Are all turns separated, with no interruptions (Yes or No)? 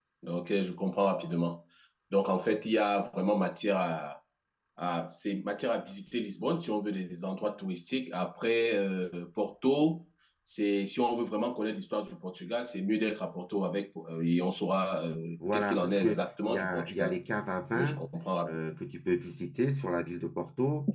No